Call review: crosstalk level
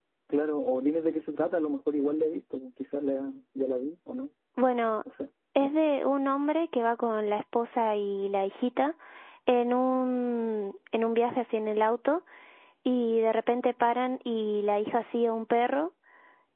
none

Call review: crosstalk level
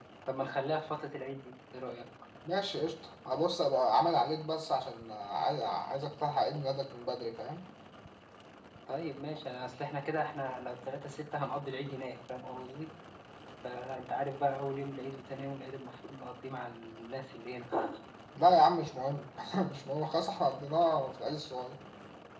none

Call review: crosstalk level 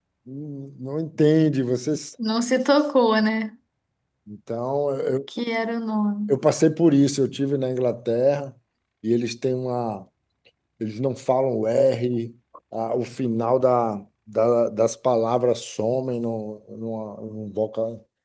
none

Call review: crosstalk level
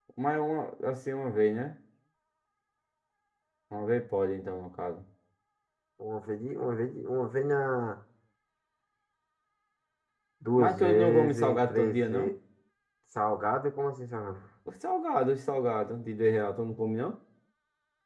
present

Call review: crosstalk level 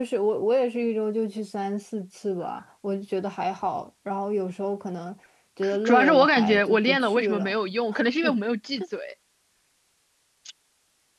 present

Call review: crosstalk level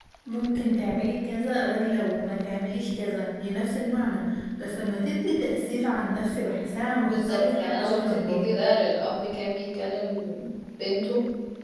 present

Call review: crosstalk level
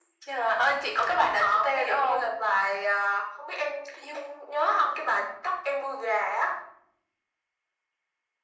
present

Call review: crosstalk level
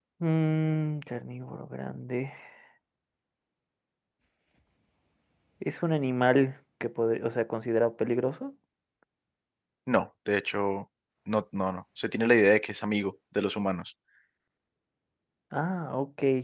none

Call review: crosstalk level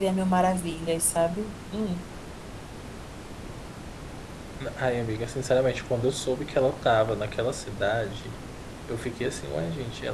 none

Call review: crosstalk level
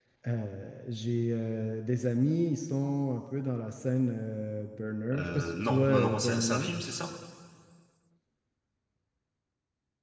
present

